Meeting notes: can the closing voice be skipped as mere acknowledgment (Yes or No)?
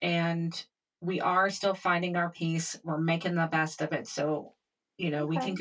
No